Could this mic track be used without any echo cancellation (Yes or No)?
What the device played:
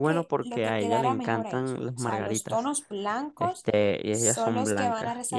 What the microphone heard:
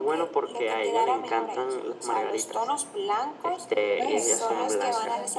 No